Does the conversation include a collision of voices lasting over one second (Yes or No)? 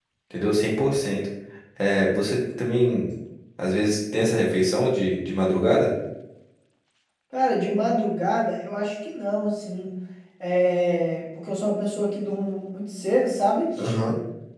No